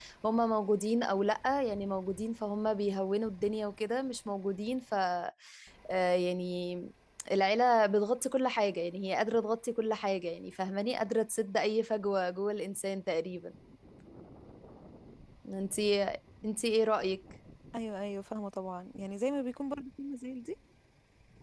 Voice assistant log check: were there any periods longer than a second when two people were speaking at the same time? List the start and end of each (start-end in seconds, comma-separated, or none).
none